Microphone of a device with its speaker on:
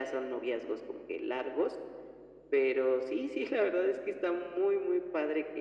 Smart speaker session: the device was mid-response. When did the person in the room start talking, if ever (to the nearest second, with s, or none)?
none